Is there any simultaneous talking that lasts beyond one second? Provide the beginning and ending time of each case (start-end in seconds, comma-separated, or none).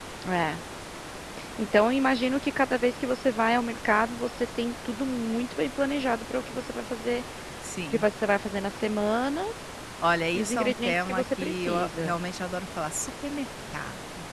10.3-12.2